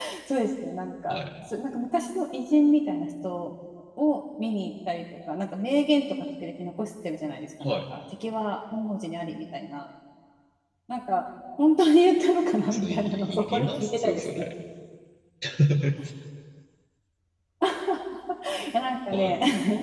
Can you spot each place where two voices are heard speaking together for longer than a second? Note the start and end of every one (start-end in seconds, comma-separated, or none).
12.7-14.5